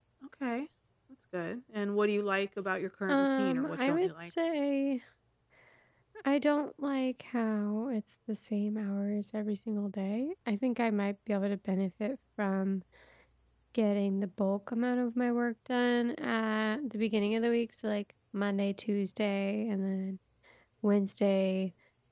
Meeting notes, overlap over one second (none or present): present